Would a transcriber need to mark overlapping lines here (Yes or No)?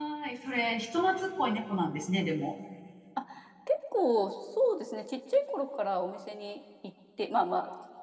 No